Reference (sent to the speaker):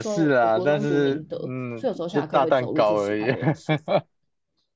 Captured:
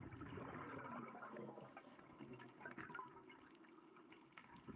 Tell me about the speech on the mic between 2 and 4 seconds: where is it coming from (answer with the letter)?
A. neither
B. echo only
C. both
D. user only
A